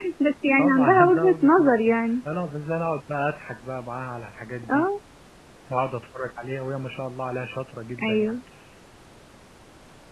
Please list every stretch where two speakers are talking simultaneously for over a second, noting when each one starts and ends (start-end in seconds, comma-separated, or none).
0.6-1.8